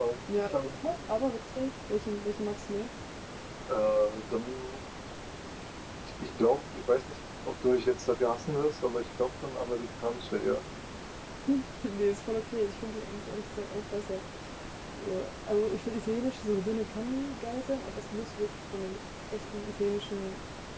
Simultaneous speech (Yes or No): No